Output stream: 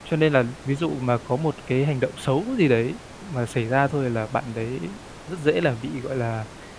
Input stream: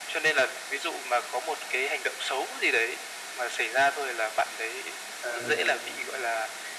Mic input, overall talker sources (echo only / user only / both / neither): both